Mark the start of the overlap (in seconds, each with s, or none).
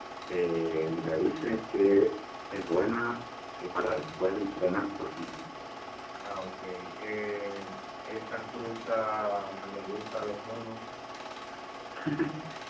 none